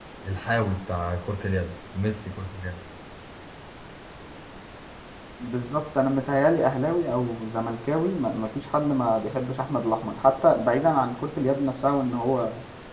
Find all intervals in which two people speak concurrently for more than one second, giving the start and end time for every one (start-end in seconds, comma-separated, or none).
none